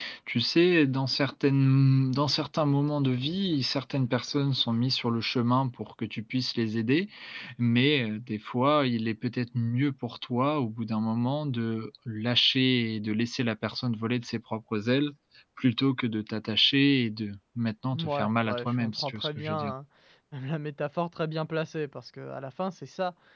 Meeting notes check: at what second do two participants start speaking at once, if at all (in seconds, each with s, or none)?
17.9 s